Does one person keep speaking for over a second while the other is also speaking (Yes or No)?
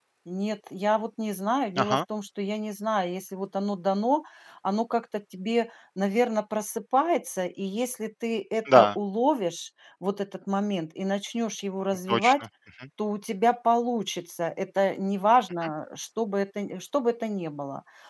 No